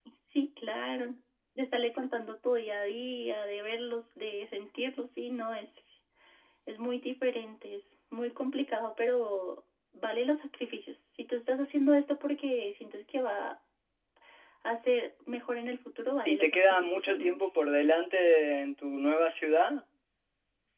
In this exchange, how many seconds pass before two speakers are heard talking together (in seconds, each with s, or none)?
16.2 s